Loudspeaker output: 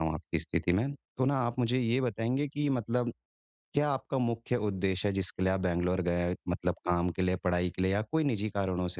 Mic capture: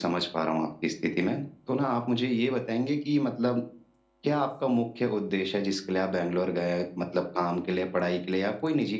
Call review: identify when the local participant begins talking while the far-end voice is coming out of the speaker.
none

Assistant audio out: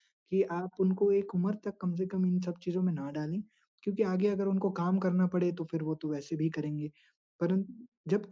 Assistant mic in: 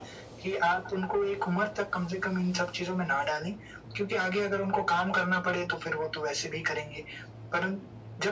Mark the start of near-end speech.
none

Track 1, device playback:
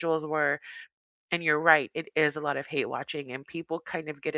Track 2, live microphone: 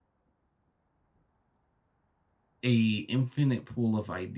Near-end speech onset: 2.6 s

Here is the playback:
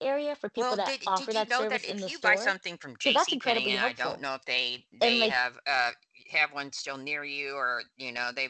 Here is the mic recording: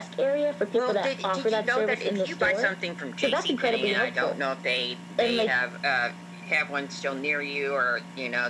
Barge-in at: none

